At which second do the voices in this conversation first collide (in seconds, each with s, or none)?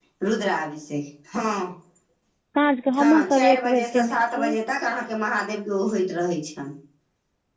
3.0 s